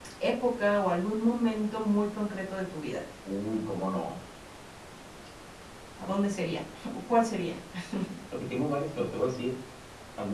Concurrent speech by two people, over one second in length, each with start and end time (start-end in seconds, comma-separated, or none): none